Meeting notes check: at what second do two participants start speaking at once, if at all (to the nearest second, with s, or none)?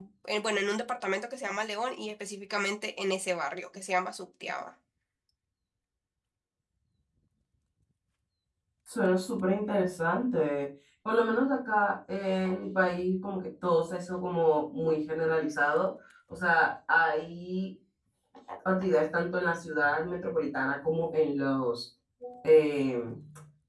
none